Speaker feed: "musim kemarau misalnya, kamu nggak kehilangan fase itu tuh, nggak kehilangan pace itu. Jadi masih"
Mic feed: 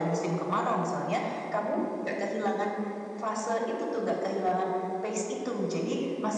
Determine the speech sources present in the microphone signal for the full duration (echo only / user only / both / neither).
echo only